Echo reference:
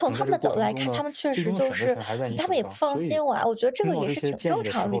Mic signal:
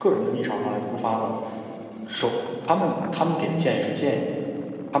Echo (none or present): none